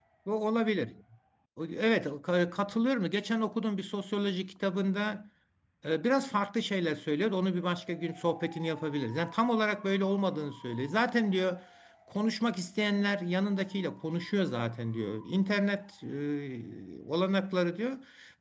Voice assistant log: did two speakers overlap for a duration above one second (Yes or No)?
No